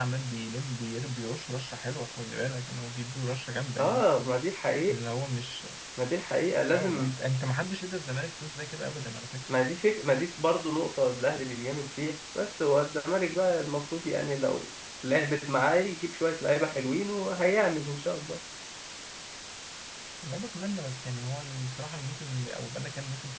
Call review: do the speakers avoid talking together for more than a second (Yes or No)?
Yes